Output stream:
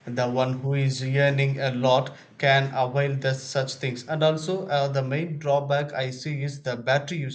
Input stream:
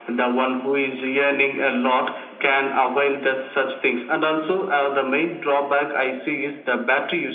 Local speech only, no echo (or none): none